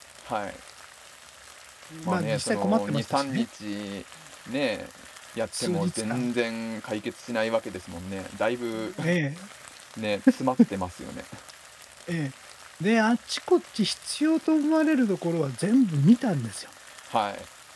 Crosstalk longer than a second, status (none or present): present